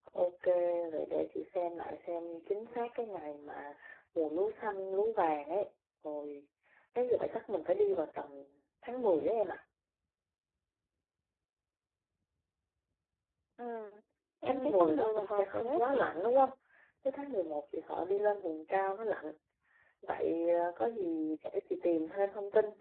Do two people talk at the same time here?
Yes, from 14.5 s

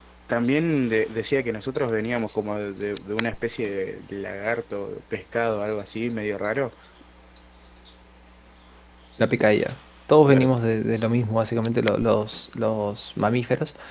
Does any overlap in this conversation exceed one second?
No

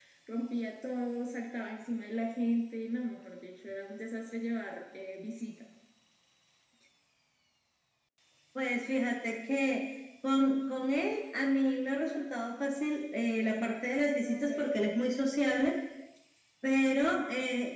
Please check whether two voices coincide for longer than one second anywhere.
No

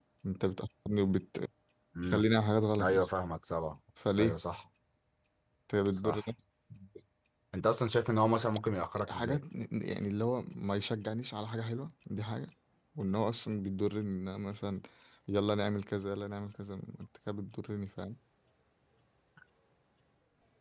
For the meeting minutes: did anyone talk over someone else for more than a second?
No

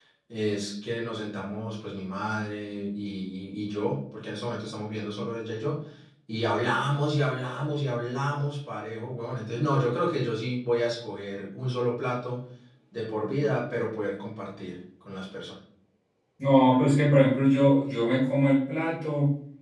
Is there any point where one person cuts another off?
No

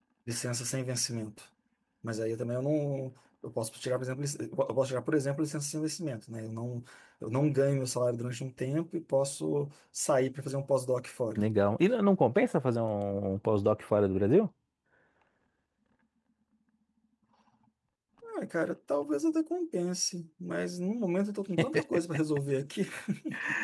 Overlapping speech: No

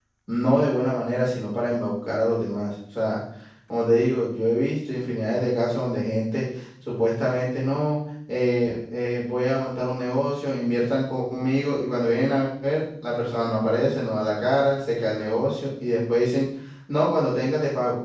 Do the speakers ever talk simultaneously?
No

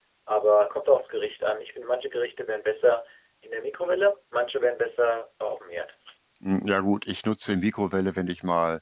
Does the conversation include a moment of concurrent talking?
No

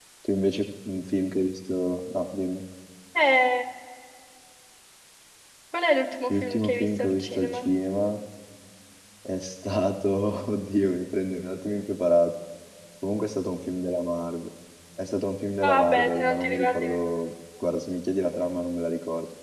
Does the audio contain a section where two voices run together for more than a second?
Yes, from 6.3 s

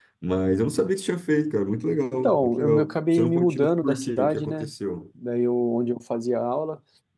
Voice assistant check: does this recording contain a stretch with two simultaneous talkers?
Yes, from 2.2 s

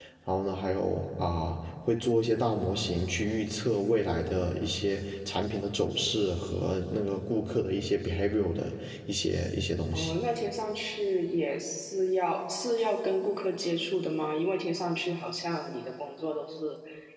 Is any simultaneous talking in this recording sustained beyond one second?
No

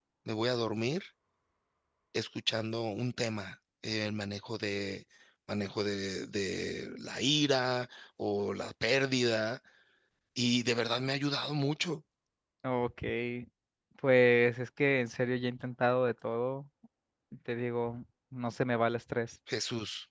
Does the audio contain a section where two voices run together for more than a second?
No

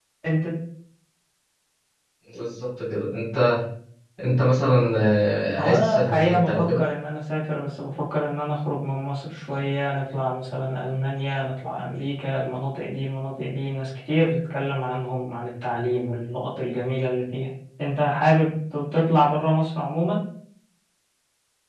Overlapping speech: Yes, from 5.6 s

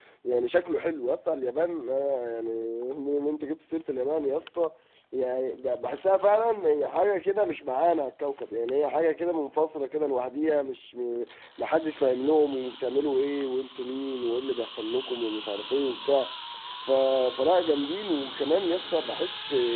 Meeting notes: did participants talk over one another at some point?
No

